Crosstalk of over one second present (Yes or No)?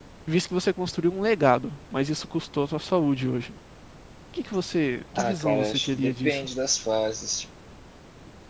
Yes